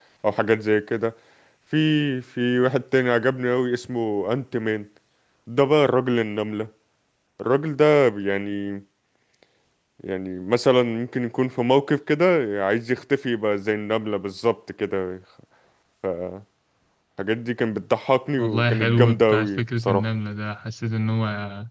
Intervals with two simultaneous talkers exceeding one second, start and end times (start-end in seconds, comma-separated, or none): 18.4-20.0